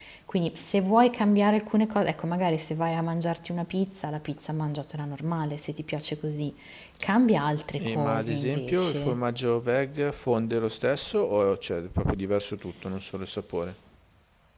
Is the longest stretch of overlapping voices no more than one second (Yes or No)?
No